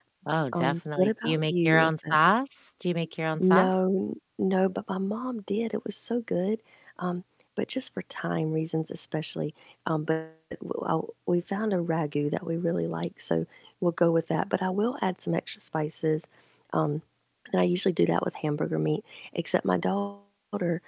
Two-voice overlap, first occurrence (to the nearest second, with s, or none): 1 s